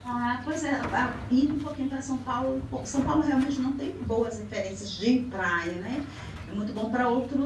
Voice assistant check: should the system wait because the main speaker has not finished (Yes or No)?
Yes